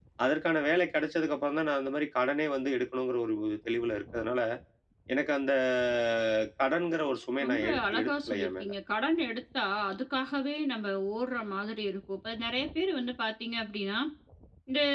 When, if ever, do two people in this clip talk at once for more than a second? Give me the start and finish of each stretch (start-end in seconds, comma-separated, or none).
7.4-8.7